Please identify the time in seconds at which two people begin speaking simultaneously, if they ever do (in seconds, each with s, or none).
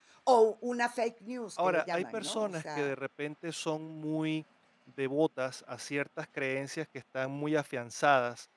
1.6 s